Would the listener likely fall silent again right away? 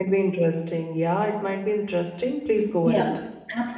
No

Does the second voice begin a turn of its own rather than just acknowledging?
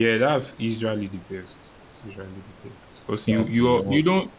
No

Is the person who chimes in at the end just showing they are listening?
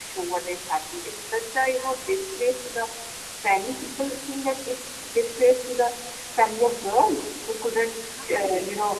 Yes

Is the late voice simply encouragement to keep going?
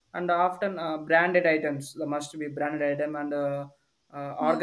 Yes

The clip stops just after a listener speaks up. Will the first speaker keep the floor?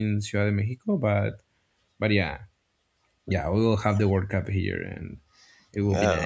No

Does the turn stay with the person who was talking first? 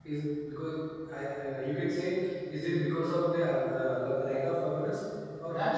No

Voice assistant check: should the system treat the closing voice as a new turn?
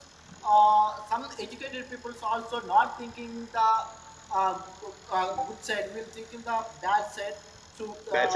Yes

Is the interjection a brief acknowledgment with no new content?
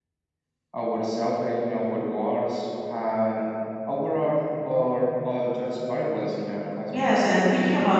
No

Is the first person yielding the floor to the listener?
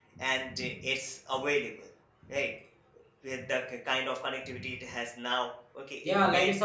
Yes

